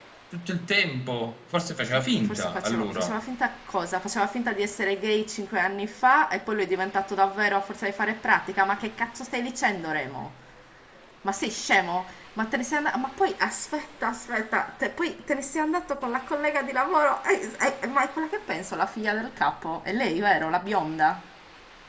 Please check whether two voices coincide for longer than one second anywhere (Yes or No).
Yes